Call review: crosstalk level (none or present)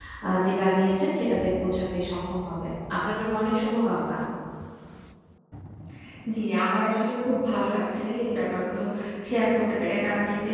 none